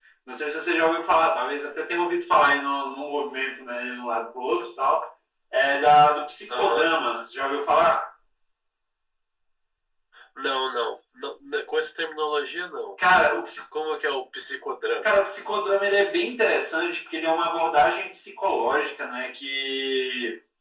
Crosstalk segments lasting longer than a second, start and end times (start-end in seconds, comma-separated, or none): none